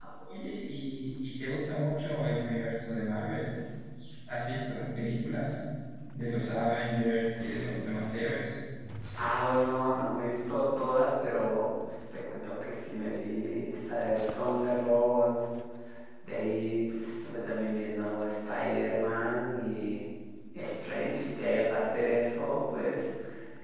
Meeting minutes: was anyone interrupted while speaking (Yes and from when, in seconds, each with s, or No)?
No